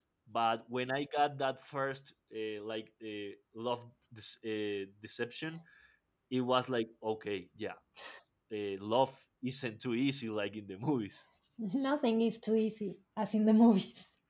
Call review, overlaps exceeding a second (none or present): none